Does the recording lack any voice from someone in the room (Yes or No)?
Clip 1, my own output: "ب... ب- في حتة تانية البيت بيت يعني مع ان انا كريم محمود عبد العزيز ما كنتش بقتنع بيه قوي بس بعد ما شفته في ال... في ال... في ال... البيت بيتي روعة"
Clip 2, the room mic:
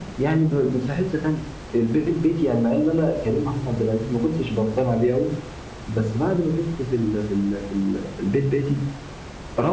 Yes